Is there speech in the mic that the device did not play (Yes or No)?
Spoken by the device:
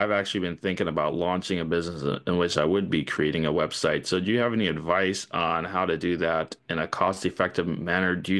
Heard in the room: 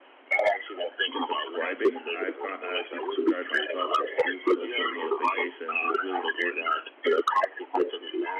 Yes